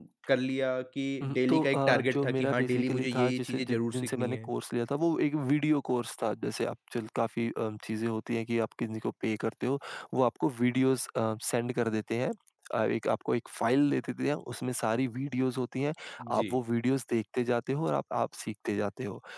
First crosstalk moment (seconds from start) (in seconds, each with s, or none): 1.2 s